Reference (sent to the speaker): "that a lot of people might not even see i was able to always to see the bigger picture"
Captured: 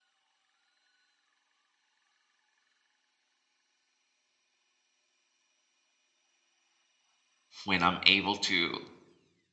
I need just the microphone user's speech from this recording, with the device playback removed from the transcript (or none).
when I'm able to